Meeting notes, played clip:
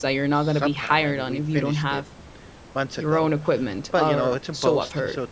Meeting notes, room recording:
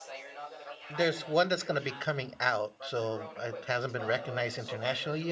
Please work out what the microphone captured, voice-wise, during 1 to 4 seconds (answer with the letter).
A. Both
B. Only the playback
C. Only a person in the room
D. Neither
A